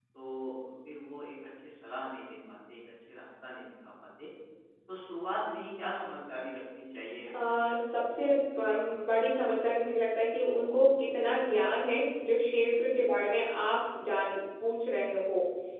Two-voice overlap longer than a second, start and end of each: 7.3-9.1

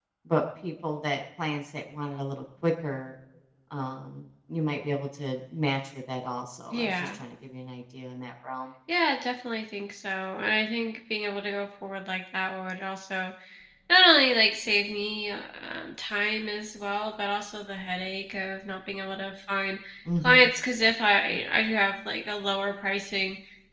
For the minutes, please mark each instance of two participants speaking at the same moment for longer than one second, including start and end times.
none

